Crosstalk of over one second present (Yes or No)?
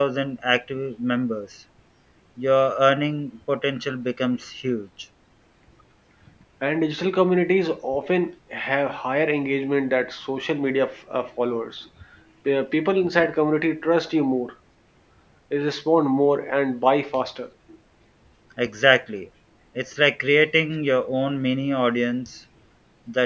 No